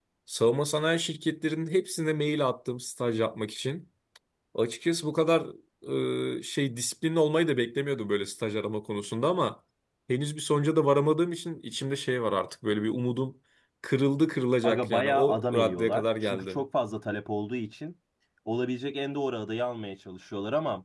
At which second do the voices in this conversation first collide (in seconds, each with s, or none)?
14.6 s